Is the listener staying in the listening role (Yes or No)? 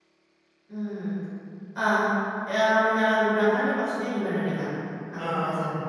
No